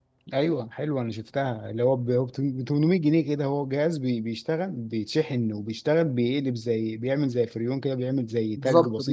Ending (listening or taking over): taking over